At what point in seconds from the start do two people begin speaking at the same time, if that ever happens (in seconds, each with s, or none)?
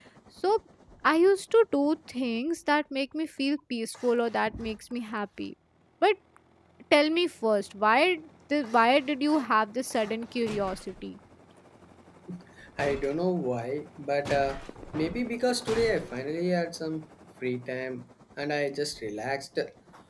none